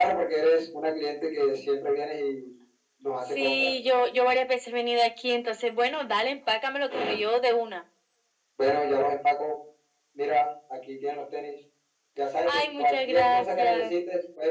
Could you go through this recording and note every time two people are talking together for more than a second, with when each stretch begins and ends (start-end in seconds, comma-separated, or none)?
12.4-13.9